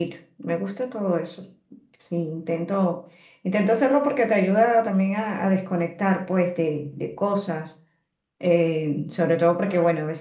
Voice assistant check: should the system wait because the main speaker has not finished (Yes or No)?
Yes